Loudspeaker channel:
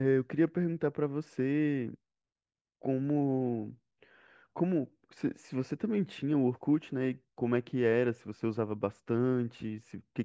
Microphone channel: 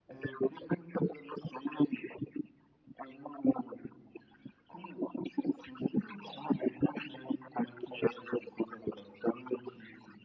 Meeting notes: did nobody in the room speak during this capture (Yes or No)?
Yes